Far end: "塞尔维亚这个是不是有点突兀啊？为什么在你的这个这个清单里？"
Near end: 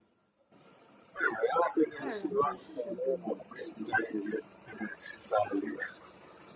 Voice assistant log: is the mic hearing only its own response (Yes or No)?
No